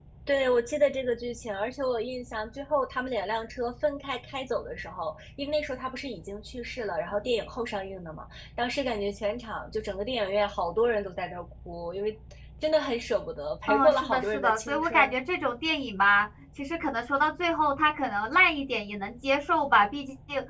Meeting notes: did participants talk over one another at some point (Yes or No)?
Yes